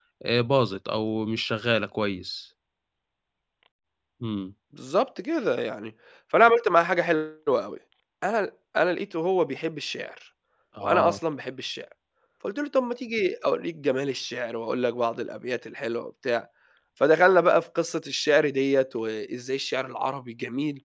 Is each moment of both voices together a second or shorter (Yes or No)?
Yes